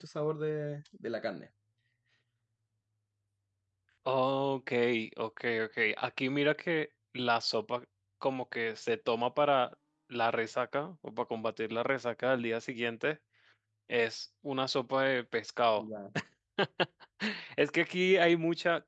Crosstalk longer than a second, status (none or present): none